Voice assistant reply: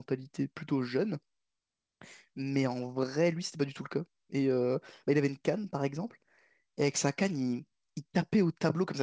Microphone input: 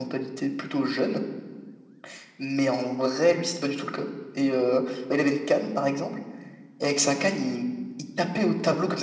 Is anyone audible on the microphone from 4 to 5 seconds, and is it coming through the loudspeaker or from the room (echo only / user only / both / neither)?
echo only